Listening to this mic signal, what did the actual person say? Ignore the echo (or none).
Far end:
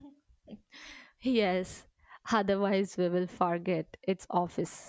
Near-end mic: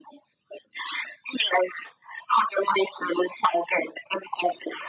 none